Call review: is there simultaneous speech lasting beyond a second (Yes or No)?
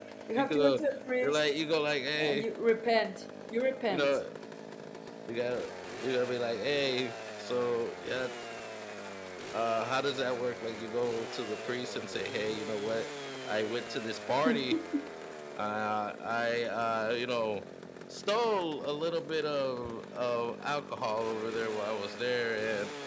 No